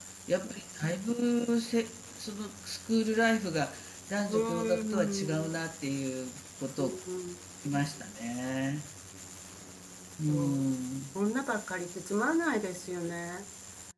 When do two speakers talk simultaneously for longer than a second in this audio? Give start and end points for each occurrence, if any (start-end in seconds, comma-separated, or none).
4.3-5.6